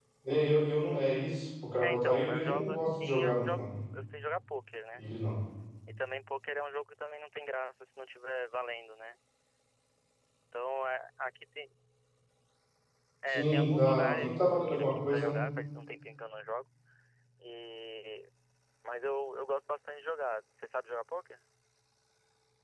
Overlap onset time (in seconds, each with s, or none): 1.8 s